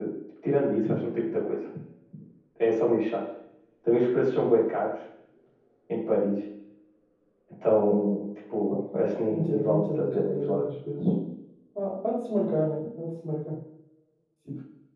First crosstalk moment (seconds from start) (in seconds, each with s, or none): 9.3 s